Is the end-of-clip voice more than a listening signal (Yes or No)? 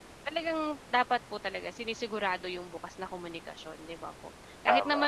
No